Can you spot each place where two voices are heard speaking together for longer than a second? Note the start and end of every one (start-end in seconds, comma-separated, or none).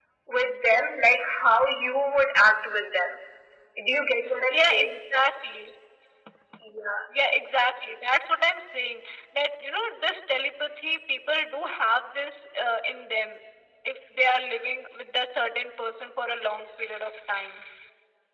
none